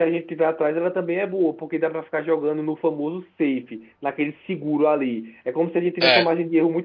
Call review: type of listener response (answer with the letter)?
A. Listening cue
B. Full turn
A